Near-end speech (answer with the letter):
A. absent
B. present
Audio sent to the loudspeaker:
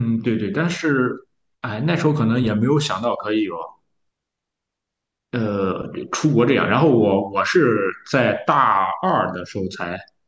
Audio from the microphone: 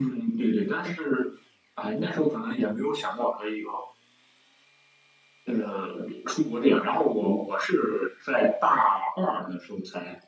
A